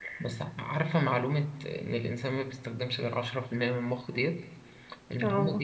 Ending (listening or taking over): listening